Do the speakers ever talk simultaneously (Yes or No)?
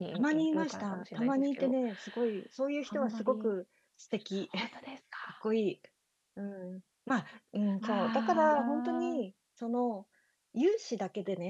Yes